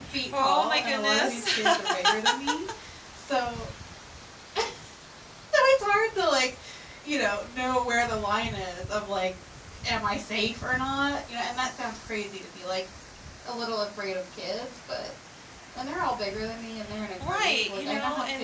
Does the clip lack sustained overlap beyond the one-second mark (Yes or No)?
No